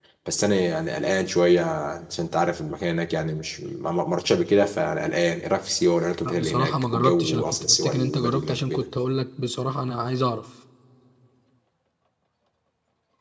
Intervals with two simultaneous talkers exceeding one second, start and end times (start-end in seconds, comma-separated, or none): 6.2-8.9